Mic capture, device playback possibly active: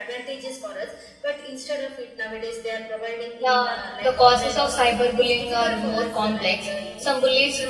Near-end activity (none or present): present